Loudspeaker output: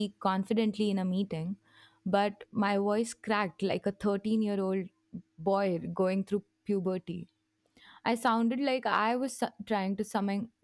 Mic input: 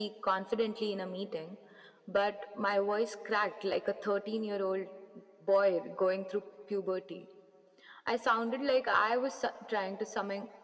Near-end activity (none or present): none